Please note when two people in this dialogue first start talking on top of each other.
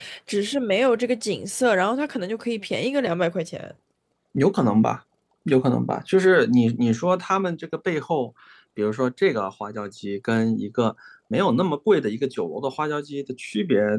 none

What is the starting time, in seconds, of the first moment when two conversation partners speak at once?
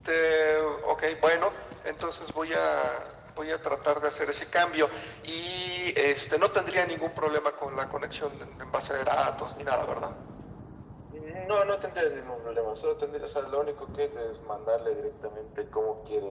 none

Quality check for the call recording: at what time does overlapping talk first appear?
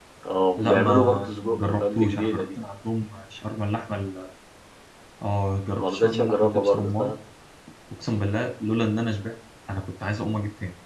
0.6 s

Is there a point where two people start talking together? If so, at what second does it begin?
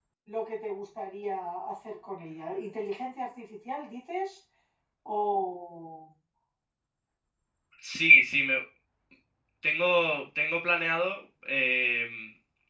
none

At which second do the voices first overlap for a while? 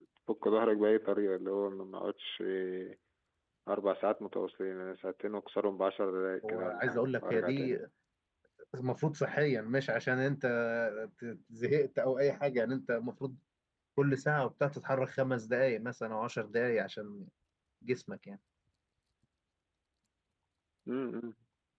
6.4 s

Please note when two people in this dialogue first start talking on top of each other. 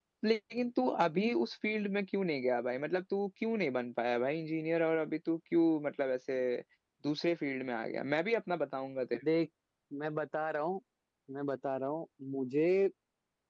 none

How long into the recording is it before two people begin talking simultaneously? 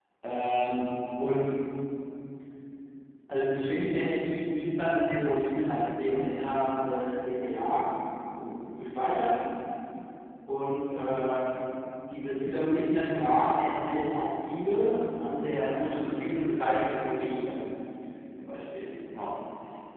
none

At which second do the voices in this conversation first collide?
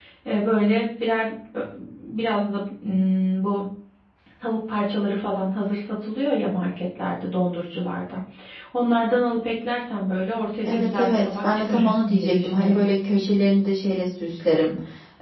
10.6 s

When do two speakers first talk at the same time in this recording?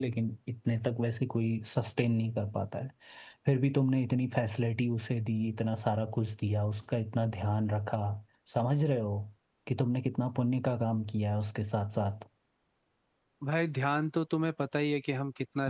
none

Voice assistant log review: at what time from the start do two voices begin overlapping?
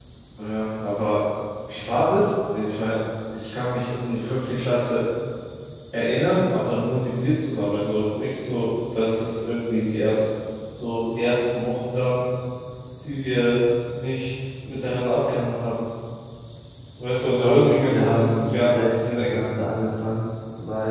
17.1 s

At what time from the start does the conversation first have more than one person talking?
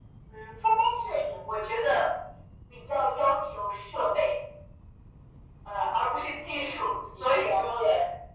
6.5 s

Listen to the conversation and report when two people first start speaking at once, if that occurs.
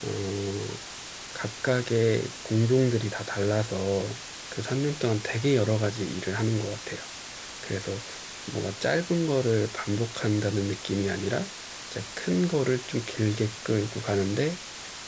none

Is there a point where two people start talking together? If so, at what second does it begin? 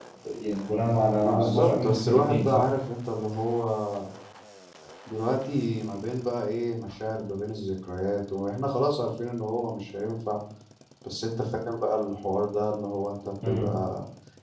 1.2 s

